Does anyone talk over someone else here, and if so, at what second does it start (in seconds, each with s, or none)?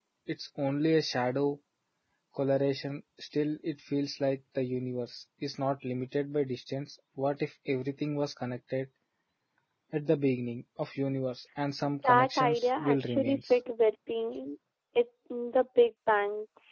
12.0 s